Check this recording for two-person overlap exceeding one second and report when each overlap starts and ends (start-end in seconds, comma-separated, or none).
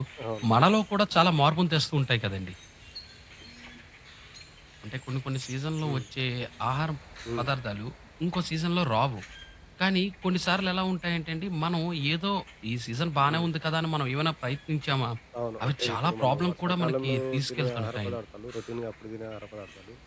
15.6-18.2